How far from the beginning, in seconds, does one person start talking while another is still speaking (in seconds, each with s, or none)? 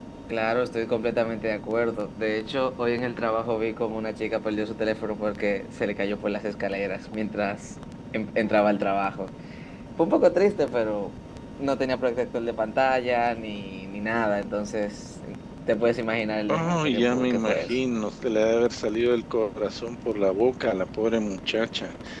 16.5 s